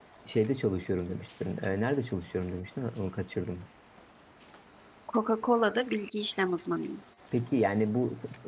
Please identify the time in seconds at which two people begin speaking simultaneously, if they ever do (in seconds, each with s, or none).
none